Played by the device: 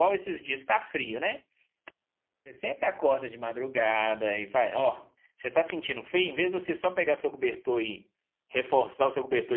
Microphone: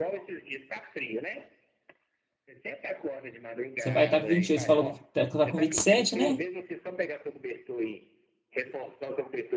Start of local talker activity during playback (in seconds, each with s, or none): 3.8 s